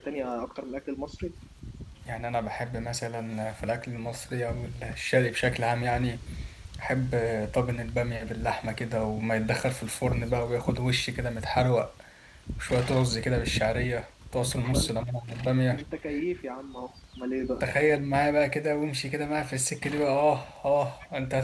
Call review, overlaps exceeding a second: none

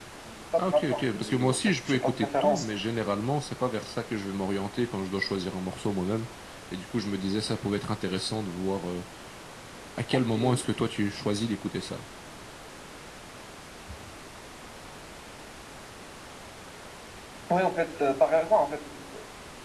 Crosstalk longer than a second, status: present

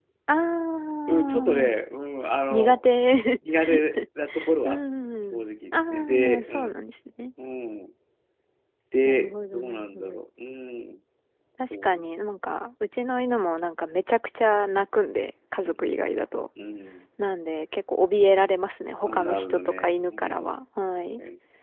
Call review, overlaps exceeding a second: present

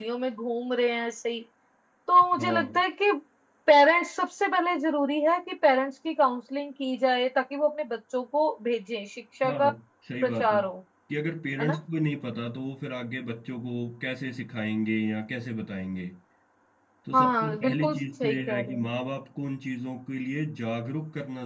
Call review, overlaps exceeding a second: present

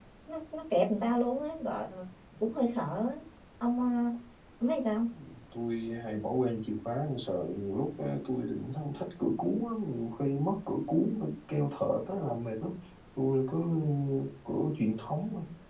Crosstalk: none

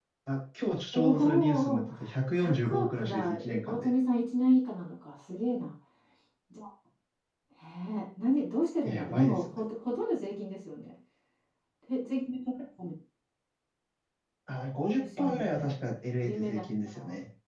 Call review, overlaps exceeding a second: present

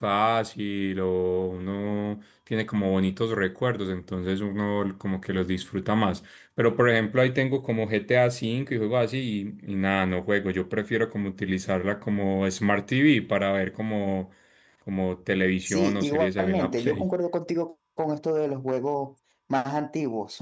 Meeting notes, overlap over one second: present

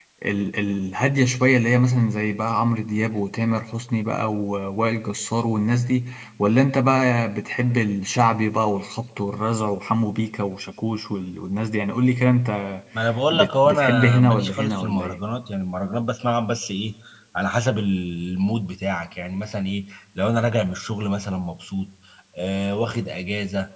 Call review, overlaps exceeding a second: present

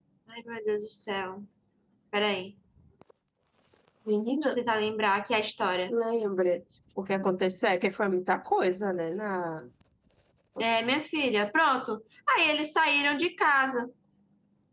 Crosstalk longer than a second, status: none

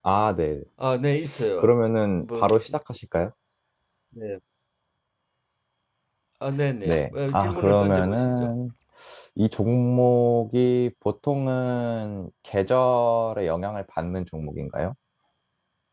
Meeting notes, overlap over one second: present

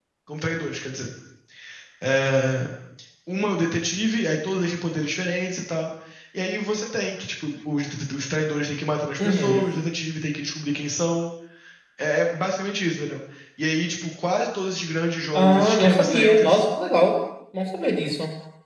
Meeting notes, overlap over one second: present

